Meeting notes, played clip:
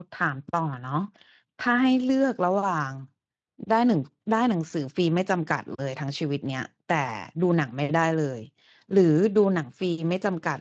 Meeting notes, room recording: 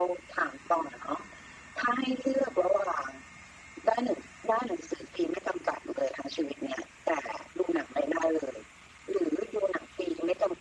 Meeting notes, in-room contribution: none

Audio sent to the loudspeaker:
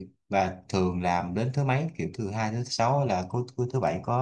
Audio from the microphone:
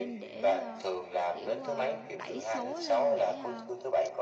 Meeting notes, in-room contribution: present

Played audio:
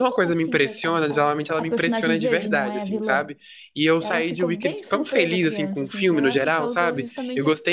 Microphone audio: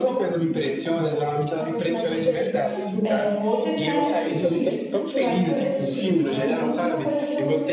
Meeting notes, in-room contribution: present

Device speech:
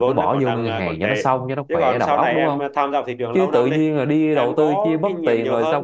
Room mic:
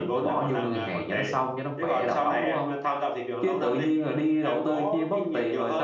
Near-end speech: none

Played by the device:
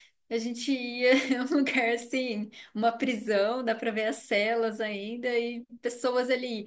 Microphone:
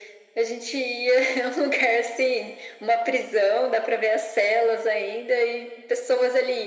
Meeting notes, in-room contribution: none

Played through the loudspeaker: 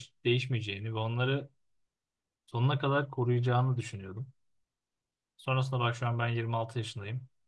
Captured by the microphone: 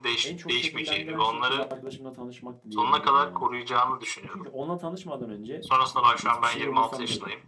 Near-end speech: present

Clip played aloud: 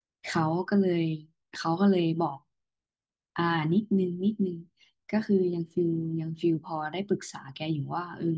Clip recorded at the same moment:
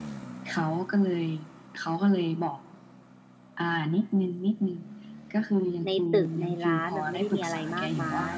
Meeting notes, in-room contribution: present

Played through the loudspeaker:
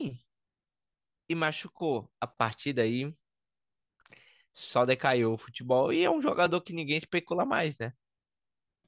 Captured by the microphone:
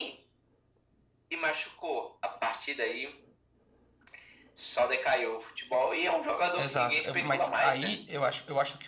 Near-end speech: present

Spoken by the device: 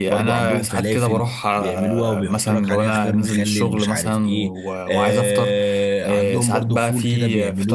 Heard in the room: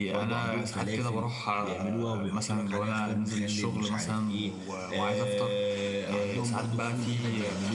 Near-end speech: none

